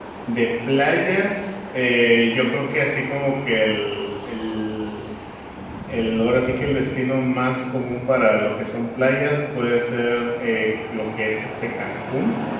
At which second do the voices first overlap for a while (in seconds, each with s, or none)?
none